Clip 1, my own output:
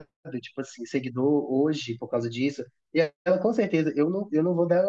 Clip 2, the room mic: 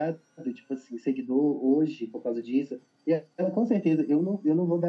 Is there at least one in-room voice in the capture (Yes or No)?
No